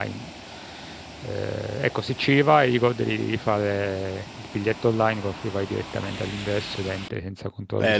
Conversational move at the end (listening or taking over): taking over